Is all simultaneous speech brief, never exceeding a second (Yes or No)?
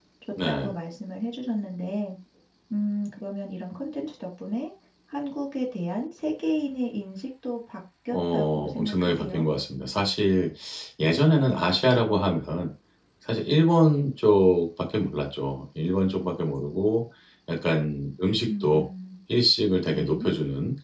No